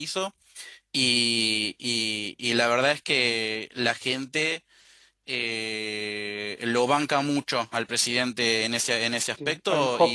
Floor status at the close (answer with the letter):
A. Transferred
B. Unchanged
A